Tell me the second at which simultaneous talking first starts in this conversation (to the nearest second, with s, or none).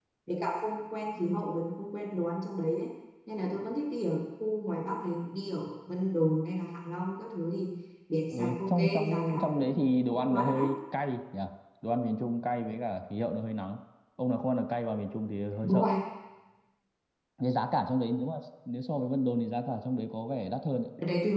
8 s